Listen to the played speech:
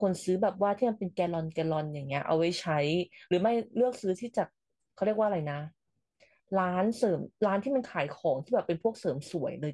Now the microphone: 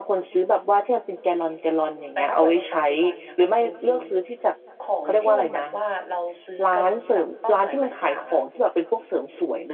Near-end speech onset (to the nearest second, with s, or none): 2 s